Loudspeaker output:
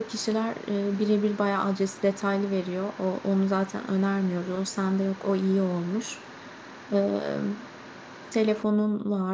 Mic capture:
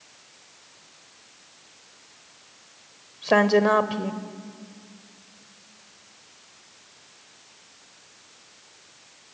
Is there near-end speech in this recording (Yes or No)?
Yes